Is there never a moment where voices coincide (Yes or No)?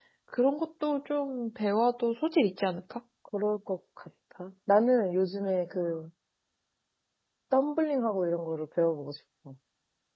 Yes